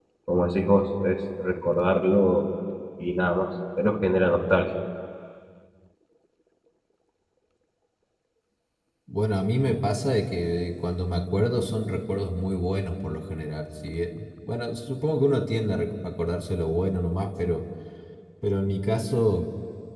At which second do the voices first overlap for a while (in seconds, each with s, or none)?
none